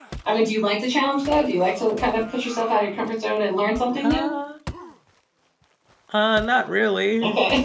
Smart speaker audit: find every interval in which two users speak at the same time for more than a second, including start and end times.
none

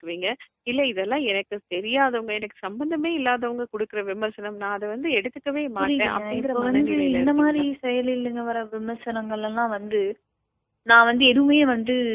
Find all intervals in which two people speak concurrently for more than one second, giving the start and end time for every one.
5.8-7.6

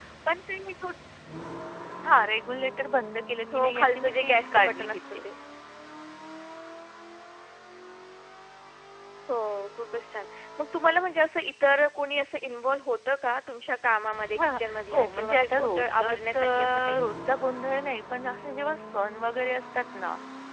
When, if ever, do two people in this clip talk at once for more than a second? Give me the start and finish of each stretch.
3.5-5.2, 14.3-17.0

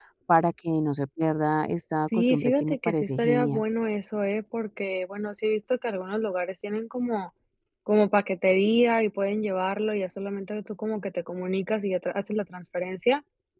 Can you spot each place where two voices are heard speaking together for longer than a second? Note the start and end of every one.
2.1-3.6

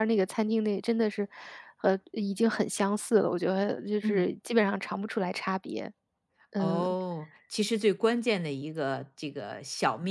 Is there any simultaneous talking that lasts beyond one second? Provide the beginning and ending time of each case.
none

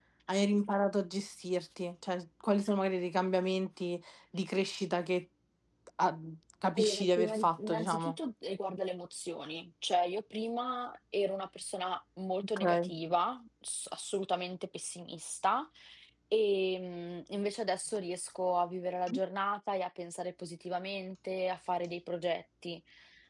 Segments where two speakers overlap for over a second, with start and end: 6.8-8.2

